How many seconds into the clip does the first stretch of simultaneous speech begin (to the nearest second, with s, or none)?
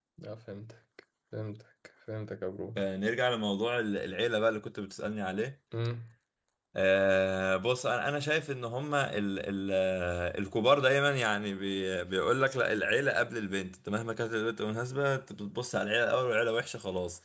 none